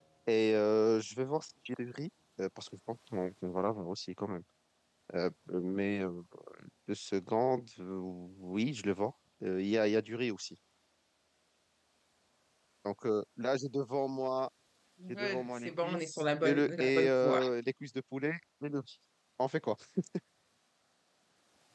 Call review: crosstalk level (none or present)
present